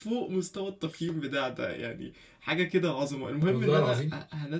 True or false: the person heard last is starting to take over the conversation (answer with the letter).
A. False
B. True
A